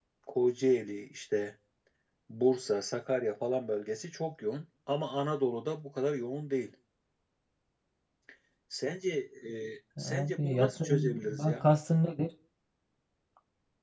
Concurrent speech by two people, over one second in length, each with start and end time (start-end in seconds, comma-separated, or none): 10.0-11.7